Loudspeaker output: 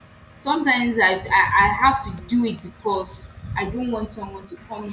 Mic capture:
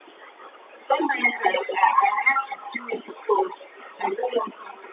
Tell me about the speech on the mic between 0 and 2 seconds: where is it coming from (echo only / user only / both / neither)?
echo only